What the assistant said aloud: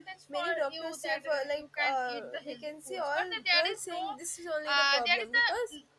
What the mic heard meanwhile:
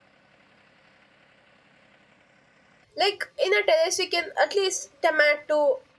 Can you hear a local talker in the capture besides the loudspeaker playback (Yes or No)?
Yes